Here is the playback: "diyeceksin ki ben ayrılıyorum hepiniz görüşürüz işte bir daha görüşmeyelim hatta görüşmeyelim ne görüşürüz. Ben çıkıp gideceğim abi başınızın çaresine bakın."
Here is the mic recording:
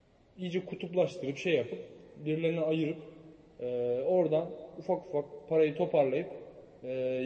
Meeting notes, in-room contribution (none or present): present